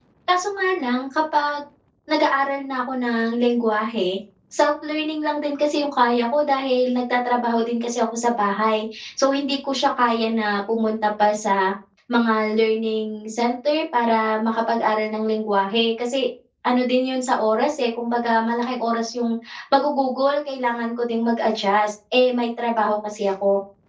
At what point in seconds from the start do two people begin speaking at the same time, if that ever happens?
none

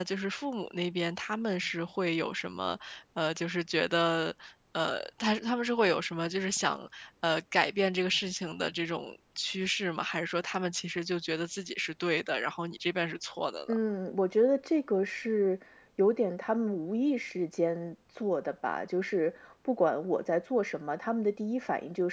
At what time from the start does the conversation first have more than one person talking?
none

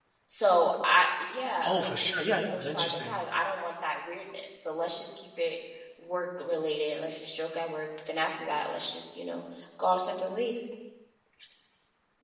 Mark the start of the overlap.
1.6 s

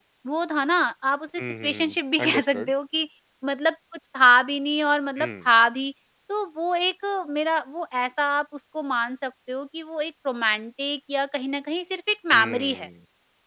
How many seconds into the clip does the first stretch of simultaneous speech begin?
1.4 s

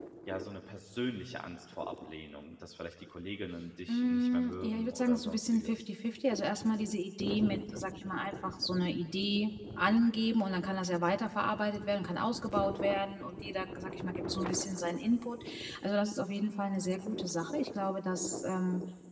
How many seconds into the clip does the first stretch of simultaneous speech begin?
3.9 s

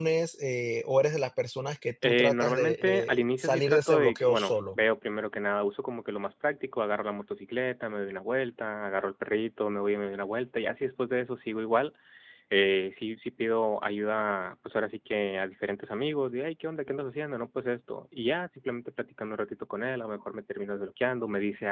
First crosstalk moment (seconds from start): 2.0 s

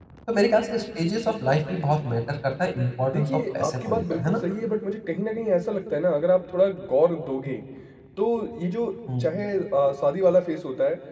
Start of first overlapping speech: 3.1 s

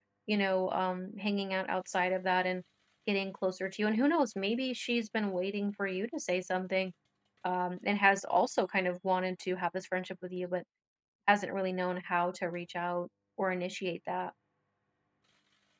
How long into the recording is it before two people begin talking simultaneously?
none

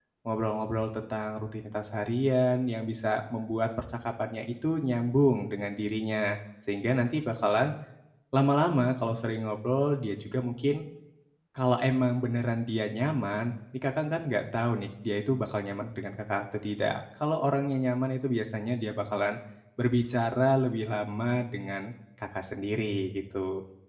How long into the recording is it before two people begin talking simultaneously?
none

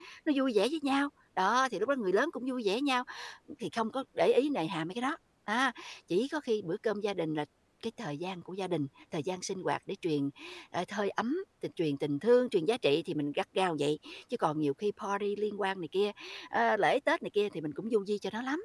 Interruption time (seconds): none

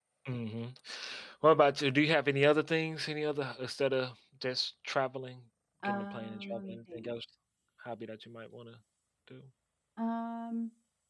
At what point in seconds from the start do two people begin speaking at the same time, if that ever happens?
5.8 s

